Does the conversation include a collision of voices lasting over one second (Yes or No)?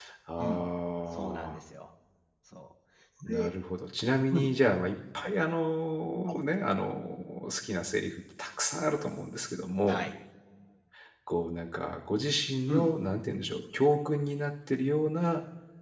No